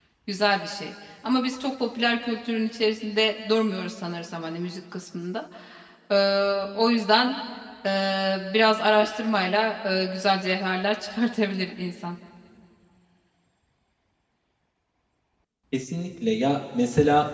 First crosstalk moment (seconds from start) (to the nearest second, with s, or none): none